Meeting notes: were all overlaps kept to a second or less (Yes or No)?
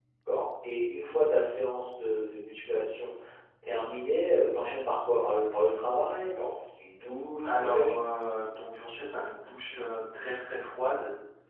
Yes